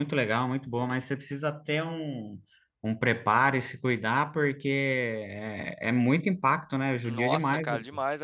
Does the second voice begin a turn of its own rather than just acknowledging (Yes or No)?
Yes